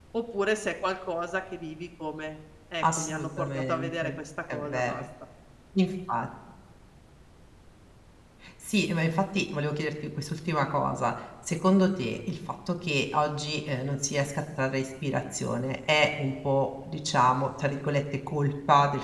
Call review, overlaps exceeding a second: present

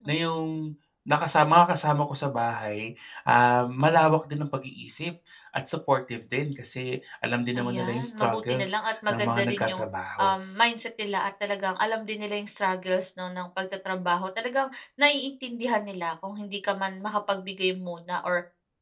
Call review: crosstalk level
present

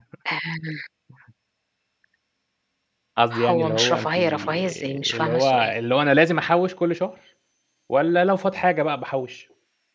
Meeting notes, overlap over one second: present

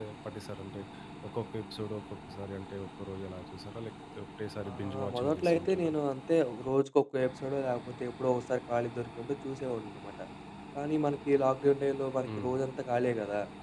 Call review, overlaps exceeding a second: present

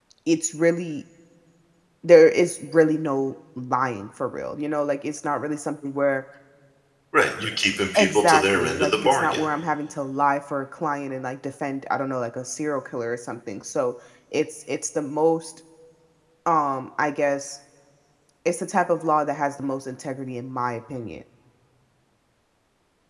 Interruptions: present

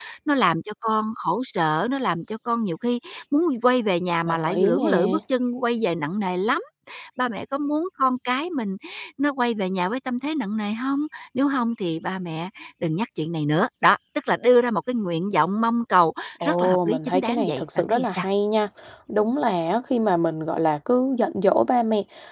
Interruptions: present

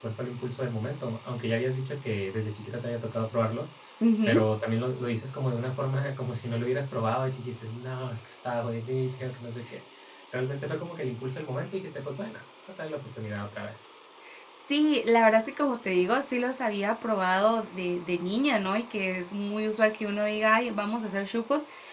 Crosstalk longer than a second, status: none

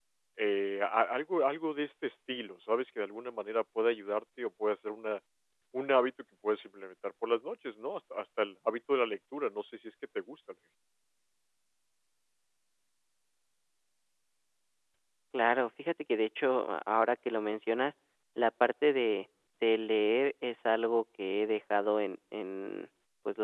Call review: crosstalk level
none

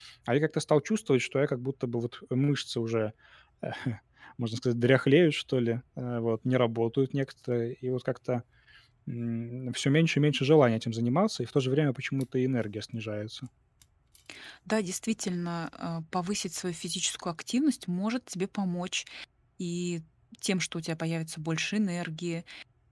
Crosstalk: none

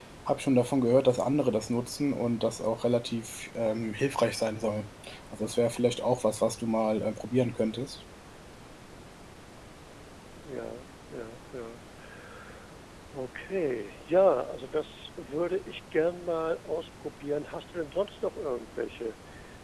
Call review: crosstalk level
none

